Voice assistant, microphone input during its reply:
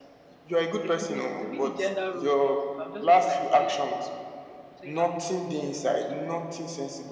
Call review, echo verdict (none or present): present